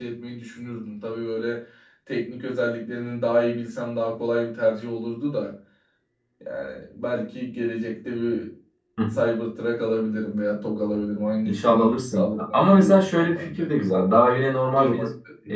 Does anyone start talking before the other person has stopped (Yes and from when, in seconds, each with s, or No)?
Yes, from 11.4 s